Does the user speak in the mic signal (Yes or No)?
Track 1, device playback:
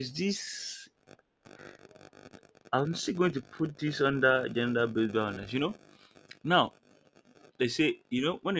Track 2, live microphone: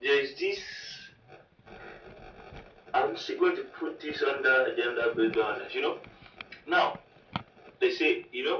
No